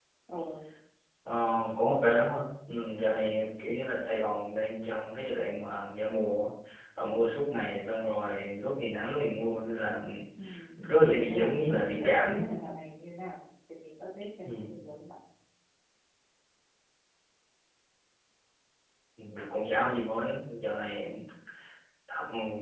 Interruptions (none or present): present